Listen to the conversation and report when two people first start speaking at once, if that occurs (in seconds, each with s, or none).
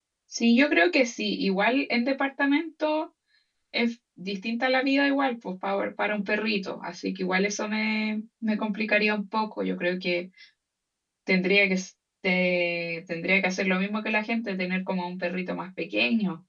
none